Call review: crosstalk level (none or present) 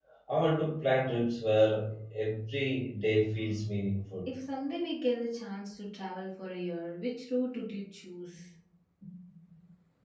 none